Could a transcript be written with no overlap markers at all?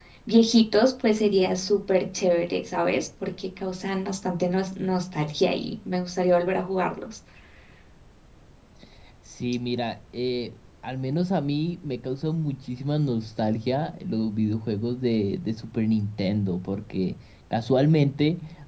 Yes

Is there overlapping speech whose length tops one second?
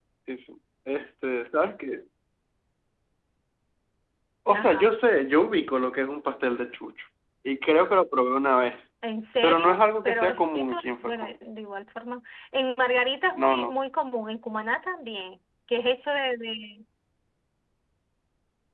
Yes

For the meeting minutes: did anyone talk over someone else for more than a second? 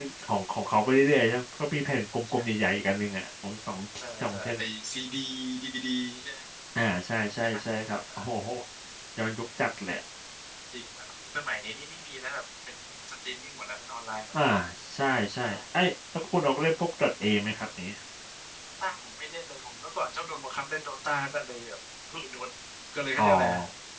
No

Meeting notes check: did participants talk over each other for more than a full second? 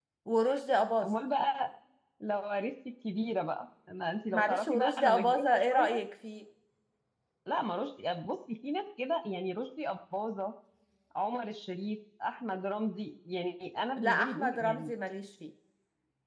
Yes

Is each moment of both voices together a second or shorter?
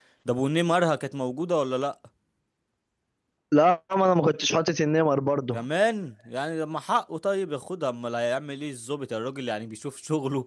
Yes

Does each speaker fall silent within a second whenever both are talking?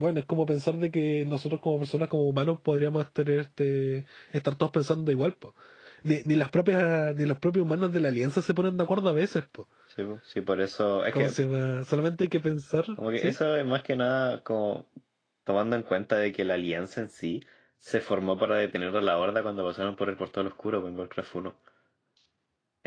Yes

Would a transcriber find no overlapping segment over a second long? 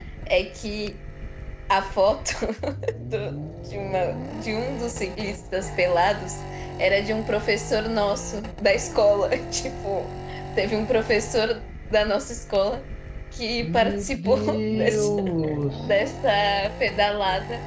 No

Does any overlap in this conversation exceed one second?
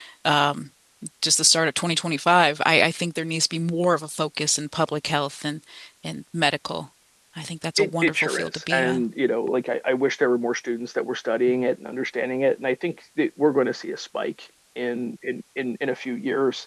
Yes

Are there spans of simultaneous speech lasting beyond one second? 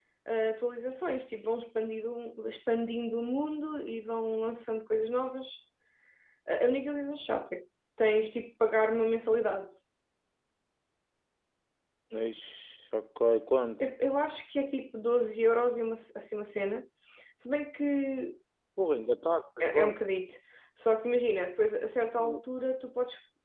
No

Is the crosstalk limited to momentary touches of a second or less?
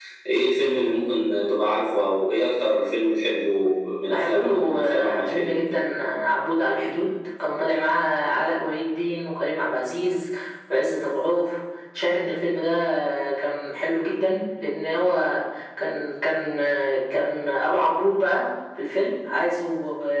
No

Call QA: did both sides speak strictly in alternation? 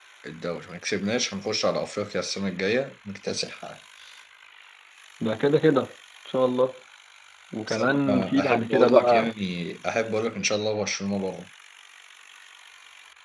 No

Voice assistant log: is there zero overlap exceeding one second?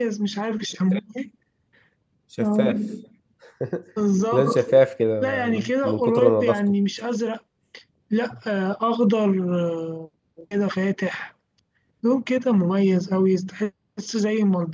No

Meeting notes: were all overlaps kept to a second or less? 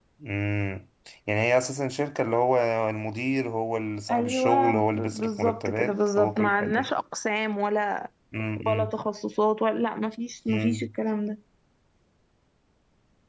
No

